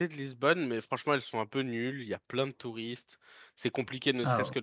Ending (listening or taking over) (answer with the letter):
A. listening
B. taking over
A